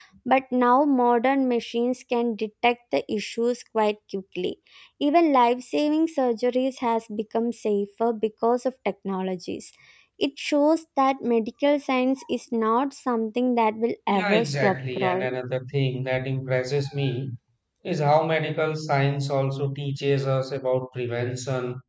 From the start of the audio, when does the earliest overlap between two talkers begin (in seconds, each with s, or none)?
14.1 s